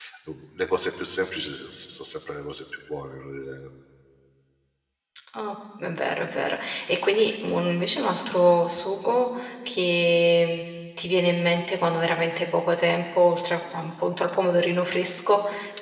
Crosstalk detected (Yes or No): No